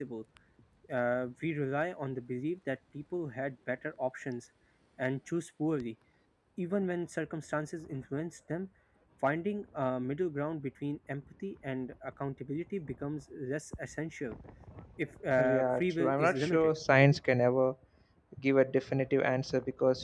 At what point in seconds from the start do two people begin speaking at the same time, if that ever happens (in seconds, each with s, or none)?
15.4 s